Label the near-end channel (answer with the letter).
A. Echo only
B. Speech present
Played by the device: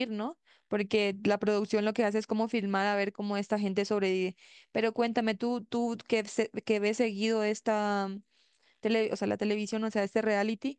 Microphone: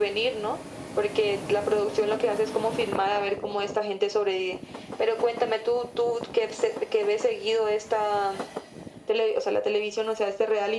A